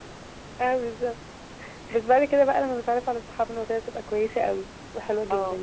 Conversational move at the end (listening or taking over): taking over